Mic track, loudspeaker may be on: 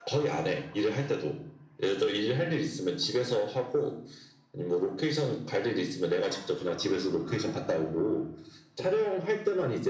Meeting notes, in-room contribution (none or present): none